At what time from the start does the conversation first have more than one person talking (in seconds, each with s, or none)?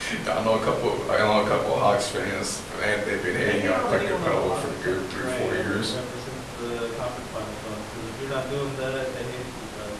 3.4 s